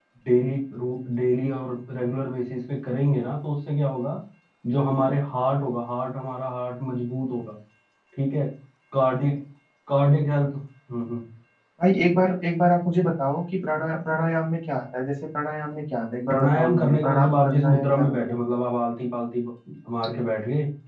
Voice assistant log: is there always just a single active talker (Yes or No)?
No